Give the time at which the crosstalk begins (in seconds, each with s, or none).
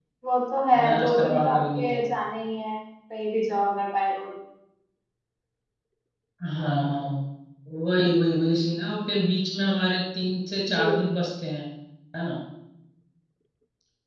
0.7 s